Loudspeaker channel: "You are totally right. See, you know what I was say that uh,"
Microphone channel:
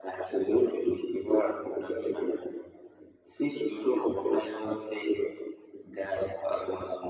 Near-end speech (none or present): none